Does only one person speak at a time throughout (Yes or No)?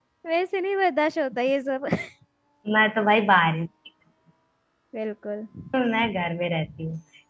Yes